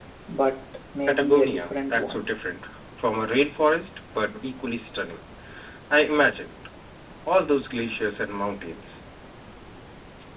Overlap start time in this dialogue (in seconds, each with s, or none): 1.1 s